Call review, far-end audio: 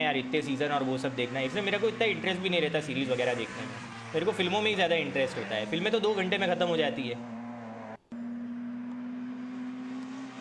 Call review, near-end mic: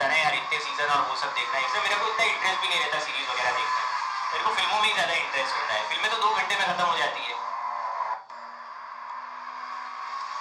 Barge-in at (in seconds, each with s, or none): none